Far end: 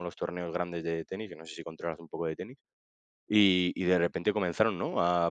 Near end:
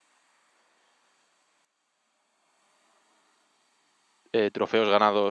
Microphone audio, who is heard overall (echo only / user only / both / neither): user only